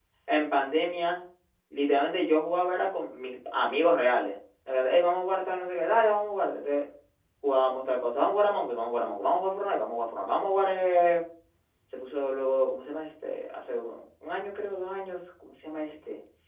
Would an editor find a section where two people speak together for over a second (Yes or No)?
No